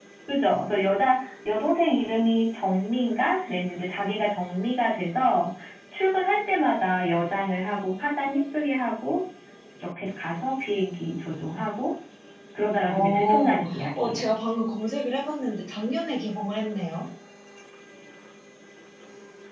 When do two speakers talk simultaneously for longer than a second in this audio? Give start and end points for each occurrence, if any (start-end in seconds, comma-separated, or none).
12.9-14.2